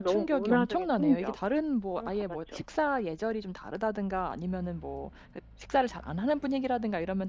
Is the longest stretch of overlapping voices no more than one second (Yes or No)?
No